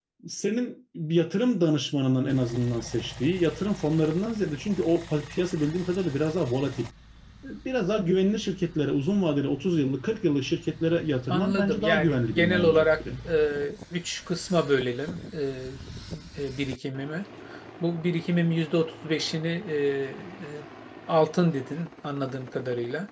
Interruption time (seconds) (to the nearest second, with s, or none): 11 s